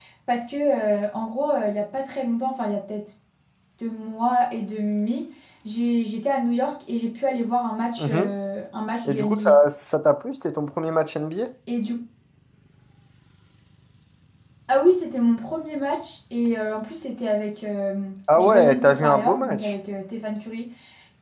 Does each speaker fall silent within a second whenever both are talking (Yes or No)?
No